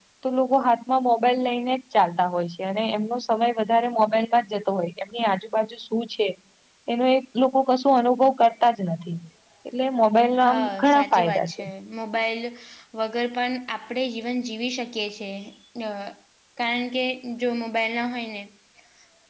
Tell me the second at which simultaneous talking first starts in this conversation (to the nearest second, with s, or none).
10 s